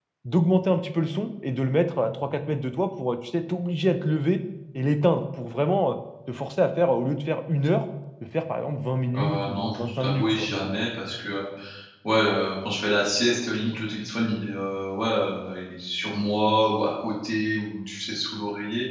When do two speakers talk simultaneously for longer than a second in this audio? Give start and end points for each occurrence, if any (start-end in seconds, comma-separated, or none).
9.2-10.5